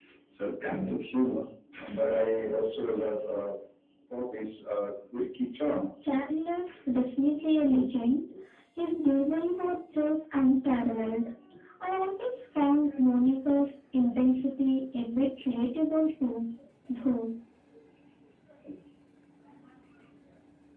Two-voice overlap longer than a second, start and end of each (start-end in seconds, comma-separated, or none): none